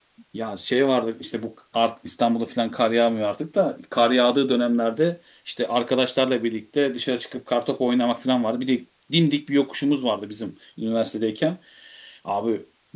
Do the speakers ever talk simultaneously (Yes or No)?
No